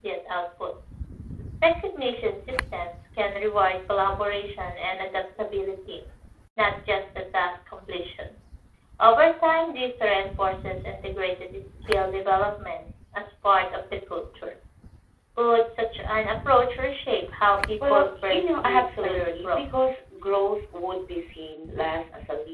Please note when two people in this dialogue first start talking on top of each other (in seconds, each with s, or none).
17.8 s